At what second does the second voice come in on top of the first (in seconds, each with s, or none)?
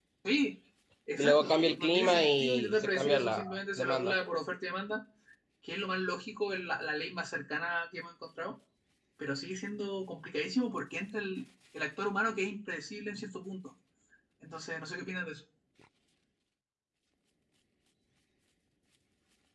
1.2 s